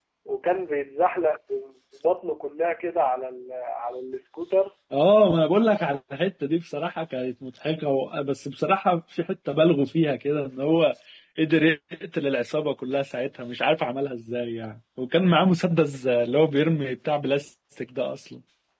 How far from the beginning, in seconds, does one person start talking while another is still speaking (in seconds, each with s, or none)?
none